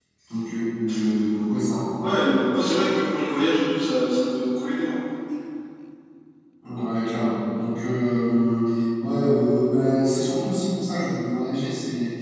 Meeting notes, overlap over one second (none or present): none